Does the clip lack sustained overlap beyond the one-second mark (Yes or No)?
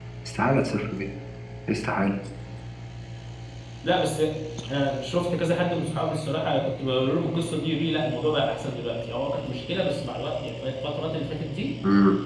Yes